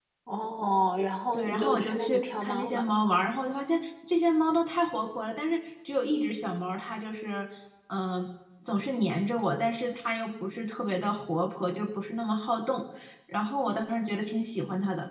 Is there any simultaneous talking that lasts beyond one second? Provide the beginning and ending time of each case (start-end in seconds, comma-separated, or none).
1.3-3.0